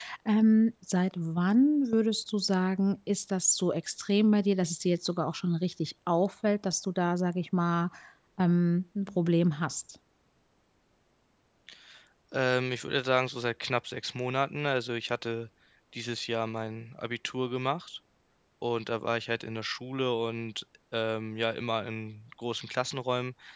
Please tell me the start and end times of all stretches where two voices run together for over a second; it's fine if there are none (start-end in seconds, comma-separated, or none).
none